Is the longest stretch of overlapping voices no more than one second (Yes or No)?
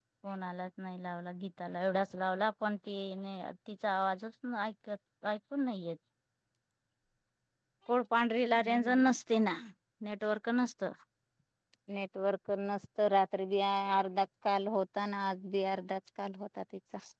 Yes